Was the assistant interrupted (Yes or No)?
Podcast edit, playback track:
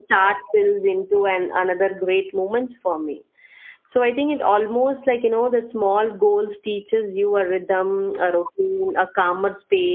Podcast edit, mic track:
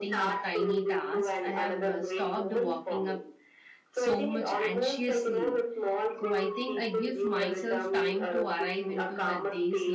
Yes